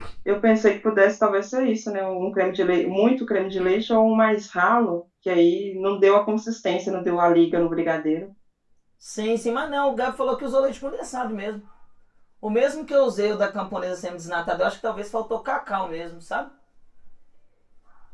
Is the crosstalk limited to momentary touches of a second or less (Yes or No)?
Yes